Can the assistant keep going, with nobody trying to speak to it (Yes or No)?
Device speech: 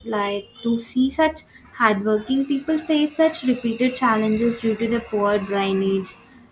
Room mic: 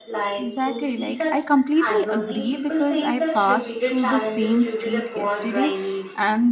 No